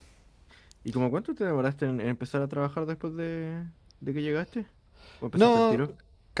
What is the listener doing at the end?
taking over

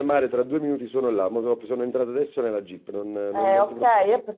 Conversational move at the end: taking over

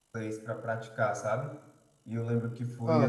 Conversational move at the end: listening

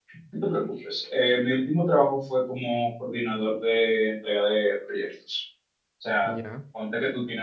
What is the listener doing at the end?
listening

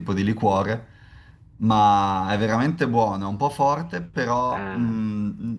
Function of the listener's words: listening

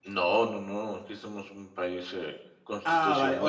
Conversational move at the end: taking over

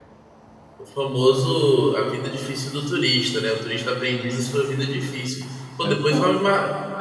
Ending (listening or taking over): listening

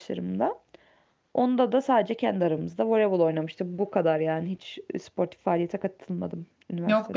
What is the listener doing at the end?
taking over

